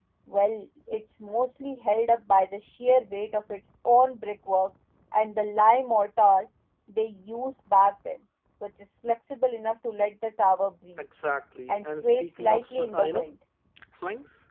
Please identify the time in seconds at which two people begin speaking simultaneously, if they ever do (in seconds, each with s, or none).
11.7 s